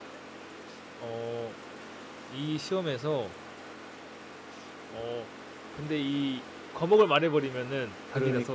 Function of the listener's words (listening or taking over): taking over